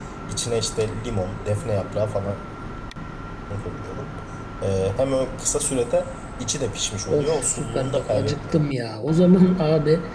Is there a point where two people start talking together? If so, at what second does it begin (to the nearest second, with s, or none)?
7 s